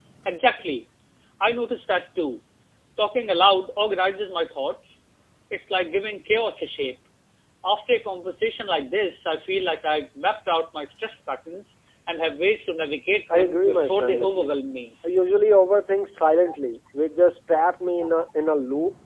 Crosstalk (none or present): present